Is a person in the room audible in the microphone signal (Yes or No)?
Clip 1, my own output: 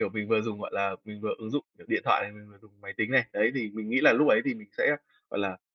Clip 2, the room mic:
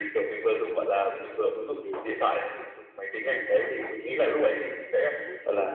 Yes